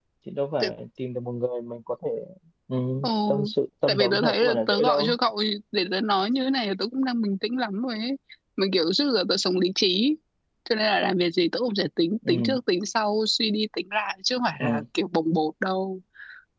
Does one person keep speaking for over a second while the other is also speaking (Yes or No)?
Yes